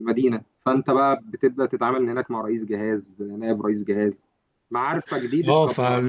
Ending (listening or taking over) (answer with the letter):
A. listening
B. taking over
B